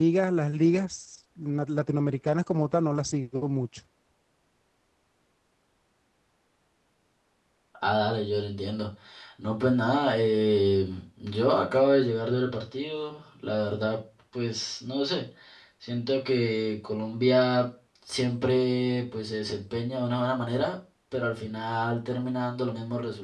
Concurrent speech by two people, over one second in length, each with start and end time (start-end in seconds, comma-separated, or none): none